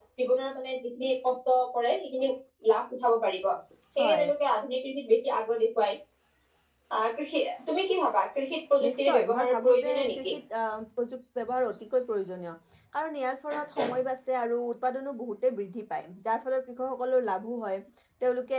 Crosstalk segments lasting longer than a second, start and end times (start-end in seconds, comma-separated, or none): 8.8-10.3